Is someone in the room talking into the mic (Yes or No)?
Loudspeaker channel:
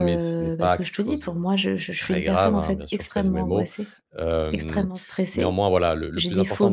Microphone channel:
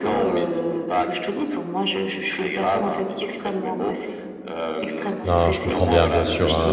Yes